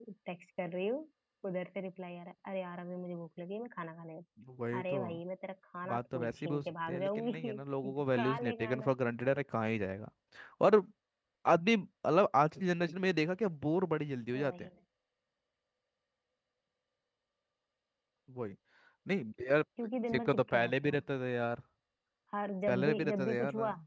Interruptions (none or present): present